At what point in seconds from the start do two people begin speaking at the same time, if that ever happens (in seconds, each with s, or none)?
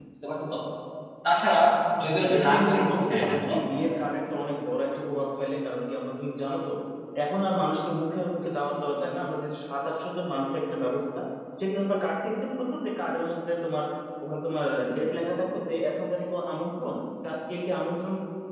2.2 s